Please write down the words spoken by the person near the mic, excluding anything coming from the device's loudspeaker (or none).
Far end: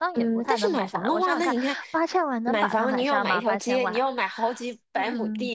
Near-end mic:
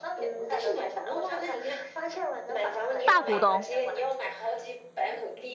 大股东，